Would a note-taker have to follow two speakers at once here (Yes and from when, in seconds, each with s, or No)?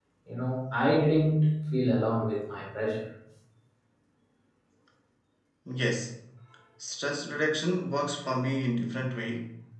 No